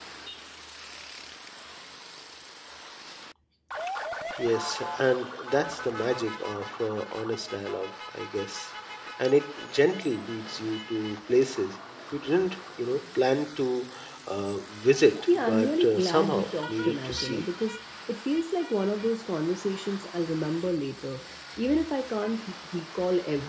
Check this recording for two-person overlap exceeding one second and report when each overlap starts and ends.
15.3-17.5

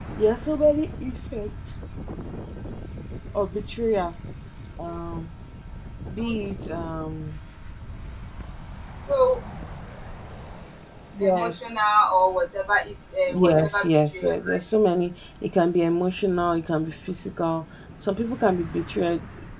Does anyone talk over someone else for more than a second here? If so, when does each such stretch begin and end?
13.3-14.6

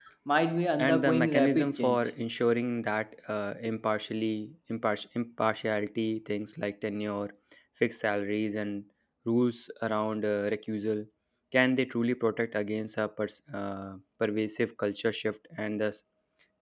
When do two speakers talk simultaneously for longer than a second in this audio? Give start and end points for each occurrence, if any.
0.8-2.1

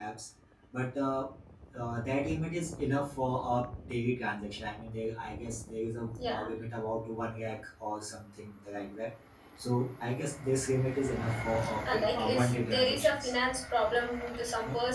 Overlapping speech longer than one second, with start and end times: 11.9-13.3

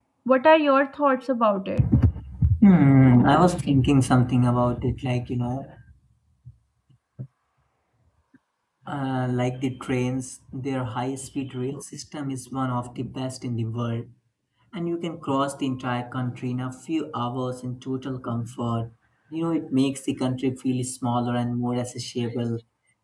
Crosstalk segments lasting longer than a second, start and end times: none

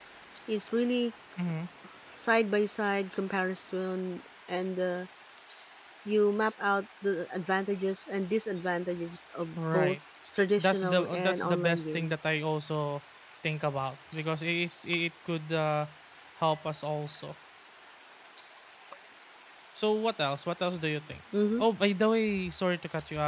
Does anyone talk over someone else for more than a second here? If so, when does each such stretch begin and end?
10.6-12.4

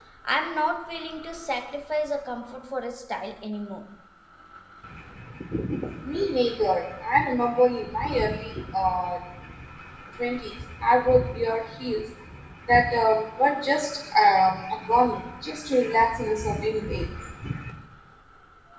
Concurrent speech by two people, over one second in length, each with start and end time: none

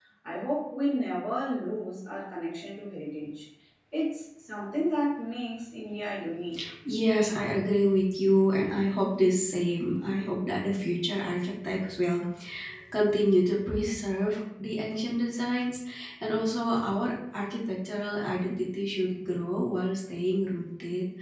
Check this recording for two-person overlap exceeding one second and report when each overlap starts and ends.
none

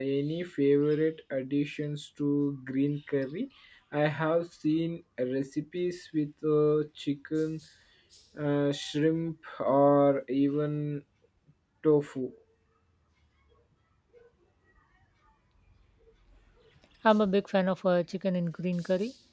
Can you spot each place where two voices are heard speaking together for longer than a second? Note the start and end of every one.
none

